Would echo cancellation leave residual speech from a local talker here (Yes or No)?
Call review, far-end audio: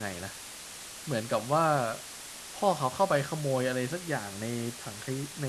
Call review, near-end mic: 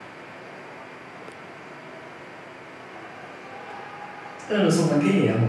Yes